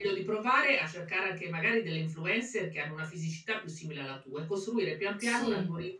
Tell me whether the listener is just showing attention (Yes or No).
Yes